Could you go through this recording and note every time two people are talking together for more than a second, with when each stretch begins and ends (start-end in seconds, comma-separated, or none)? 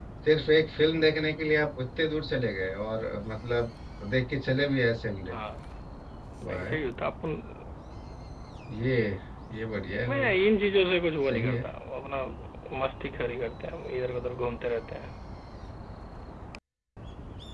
none